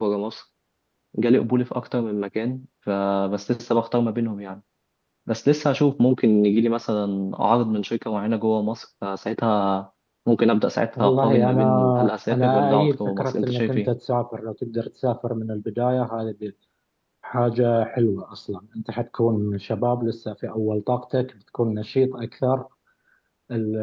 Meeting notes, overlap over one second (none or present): present